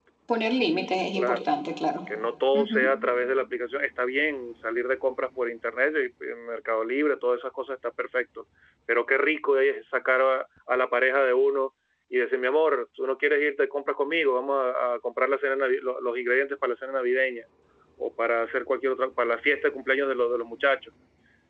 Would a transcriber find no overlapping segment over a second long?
Yes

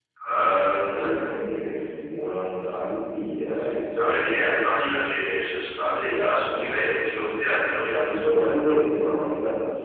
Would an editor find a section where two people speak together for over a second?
No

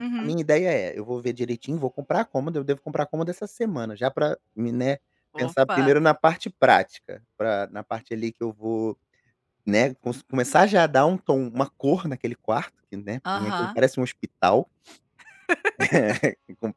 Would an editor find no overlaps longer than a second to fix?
Yes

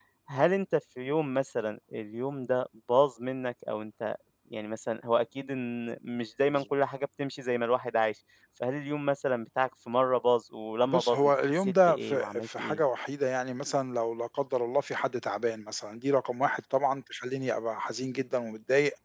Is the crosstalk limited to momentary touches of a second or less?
No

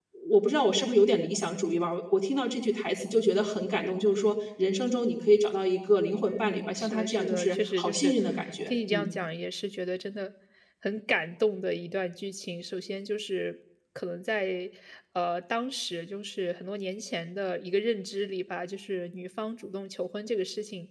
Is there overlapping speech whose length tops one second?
Yes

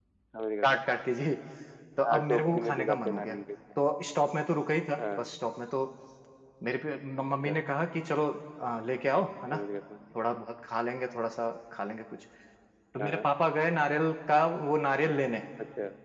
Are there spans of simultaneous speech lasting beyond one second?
Yes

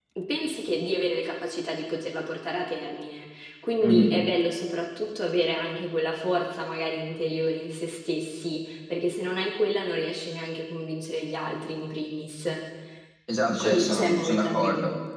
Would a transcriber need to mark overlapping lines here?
Yes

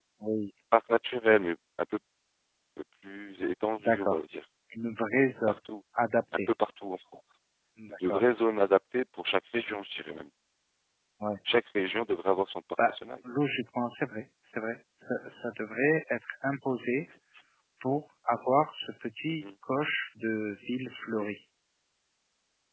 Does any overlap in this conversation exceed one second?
No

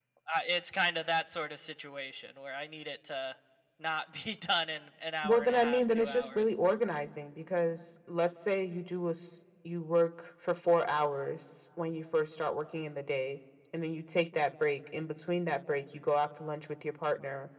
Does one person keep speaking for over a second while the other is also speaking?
Yes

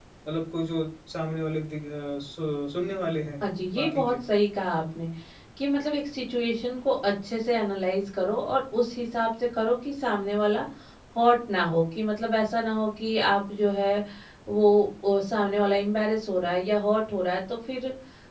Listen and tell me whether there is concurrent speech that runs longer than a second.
No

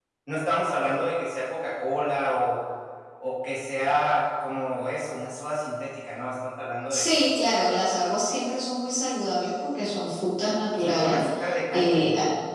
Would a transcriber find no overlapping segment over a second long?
Yes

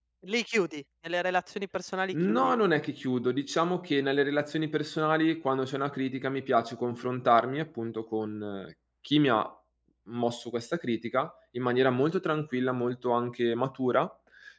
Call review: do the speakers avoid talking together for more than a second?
Yes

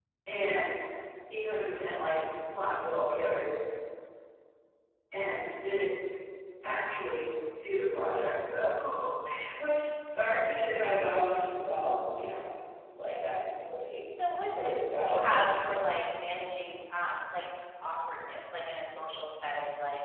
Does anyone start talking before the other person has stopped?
Yes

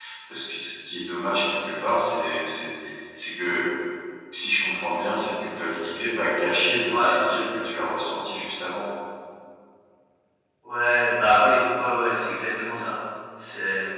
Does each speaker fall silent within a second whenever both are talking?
Yes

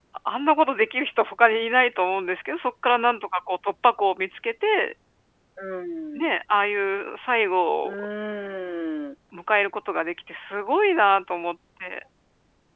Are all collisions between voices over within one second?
Yes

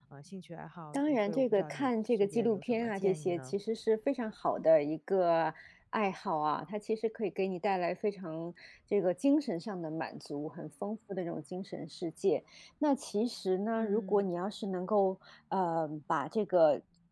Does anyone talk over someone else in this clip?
Yes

